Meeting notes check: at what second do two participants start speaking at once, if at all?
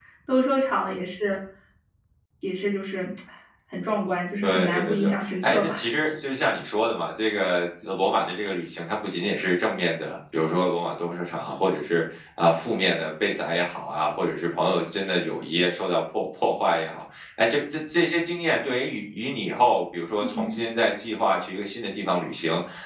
4.4 s

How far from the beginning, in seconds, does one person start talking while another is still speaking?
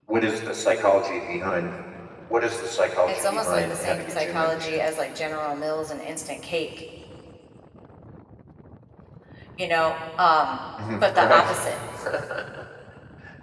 3.1 s

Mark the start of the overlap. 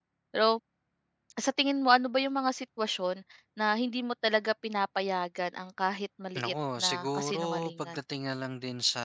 6.4 s

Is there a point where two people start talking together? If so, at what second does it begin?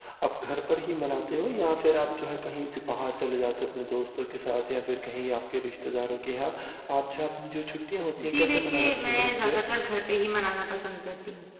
8.2 s

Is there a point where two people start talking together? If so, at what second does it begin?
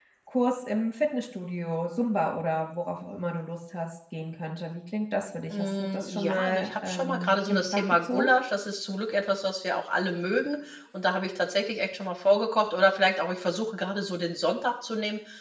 5.5 s

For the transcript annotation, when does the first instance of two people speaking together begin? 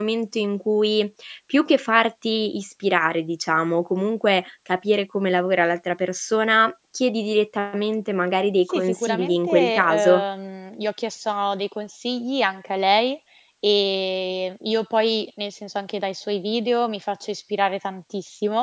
8.7 s

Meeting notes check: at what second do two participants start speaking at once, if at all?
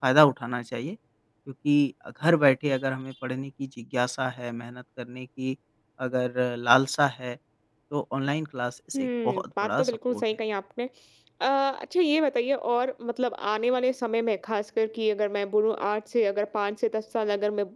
8.9 s

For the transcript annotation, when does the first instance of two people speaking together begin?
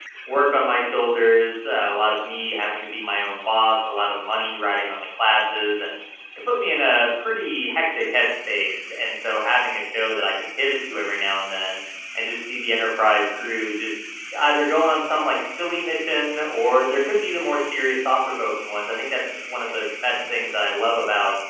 none

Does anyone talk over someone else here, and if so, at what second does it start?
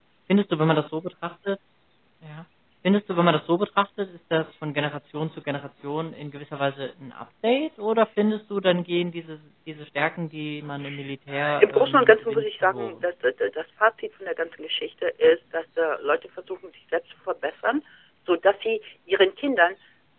11.3 s

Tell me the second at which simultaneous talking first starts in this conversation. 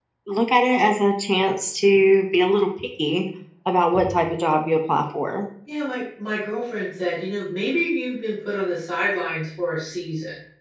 none

